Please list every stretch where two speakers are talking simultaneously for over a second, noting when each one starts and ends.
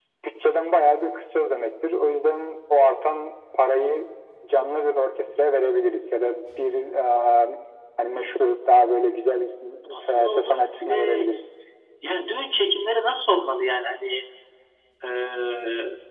9.9-11.3

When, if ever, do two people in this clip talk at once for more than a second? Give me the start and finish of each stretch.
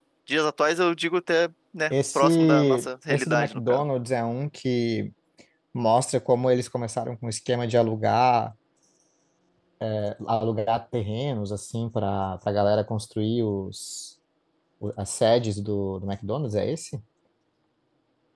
1.9-3.8

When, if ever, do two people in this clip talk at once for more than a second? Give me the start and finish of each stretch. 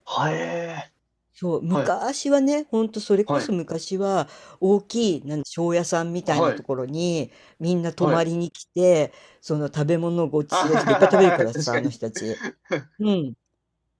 10.5-11.9

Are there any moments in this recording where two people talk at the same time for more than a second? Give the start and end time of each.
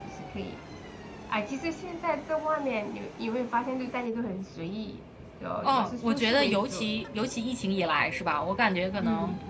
5.6-6.9

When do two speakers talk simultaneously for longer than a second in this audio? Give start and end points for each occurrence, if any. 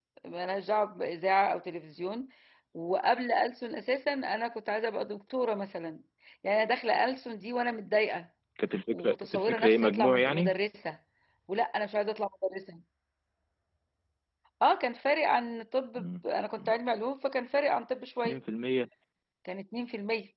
8.9-10.5

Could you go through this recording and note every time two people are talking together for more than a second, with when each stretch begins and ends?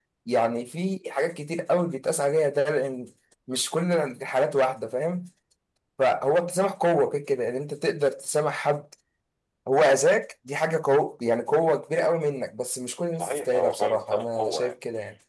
13.2-14.7

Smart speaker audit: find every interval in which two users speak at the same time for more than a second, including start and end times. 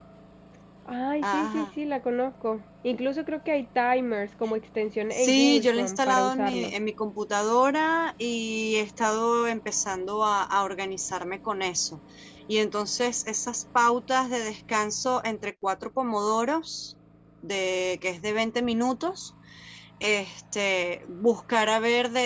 5.1-6.7

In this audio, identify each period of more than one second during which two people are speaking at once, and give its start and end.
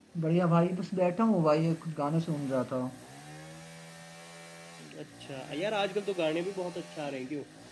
none

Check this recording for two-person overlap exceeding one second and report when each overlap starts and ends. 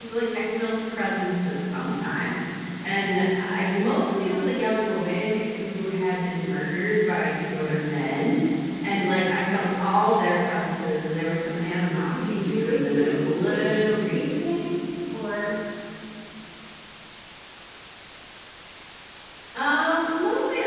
12.1-14.3

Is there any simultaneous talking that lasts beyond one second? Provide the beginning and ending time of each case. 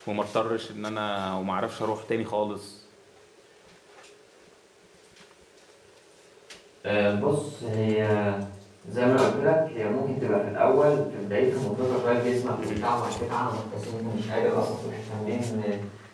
none

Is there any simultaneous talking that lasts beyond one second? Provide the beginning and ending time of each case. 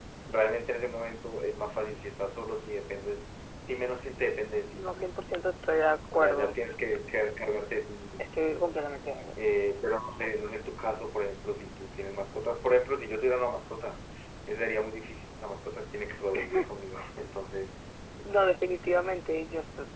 none

